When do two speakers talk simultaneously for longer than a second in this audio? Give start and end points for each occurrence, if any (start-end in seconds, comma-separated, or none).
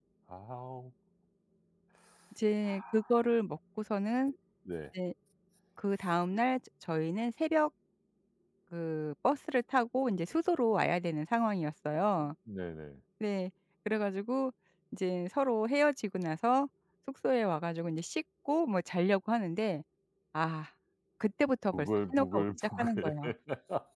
21.7-23.1